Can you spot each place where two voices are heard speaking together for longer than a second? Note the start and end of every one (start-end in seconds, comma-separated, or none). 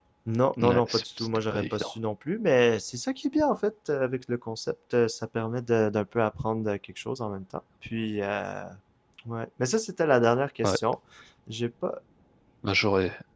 0.6-1.9